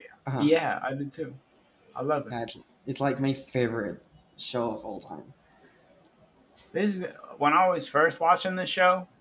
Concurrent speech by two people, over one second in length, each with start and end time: none

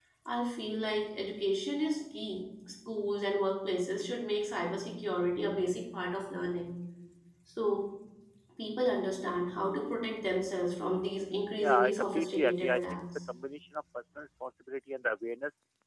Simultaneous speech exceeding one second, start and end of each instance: 11.6-13.2

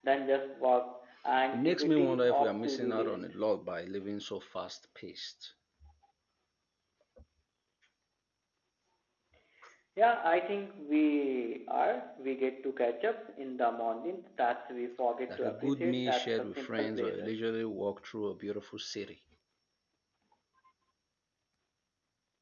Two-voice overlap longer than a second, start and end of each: 1.5-3.3, 15.3-17.3

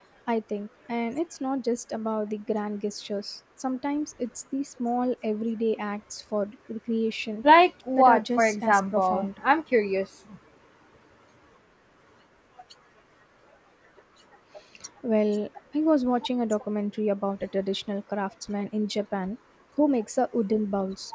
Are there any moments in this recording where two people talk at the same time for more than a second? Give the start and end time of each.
7.9-9.3

